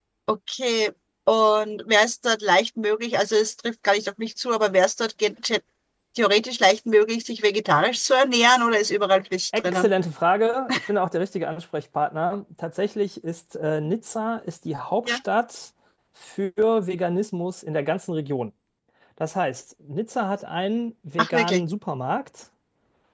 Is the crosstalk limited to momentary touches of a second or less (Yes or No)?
Yes